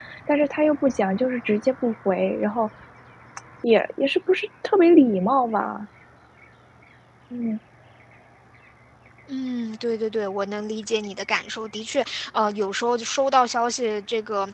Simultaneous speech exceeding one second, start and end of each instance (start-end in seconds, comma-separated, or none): none